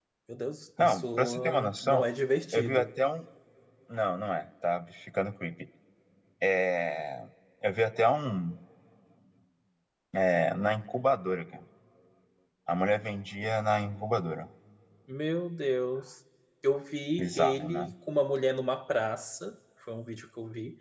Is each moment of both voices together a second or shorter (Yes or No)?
No